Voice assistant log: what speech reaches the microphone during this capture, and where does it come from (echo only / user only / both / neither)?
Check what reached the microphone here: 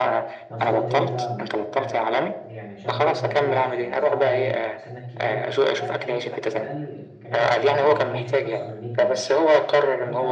both